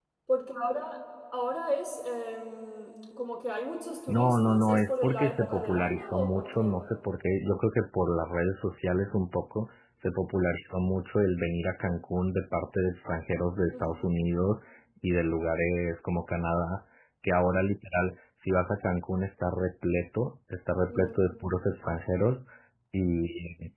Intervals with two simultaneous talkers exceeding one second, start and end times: 4.1-6.8

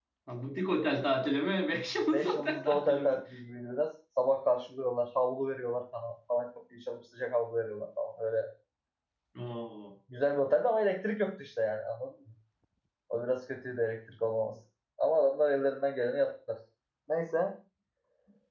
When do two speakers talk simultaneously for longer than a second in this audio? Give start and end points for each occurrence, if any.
1.9-3.1

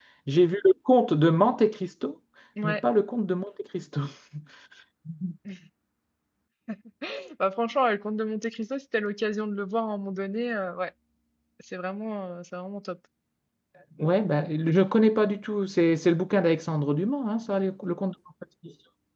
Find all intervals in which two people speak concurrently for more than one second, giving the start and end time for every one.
none

